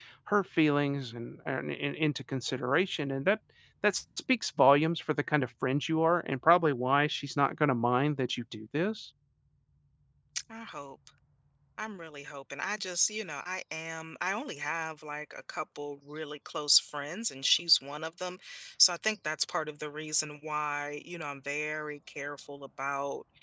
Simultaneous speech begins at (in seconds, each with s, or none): none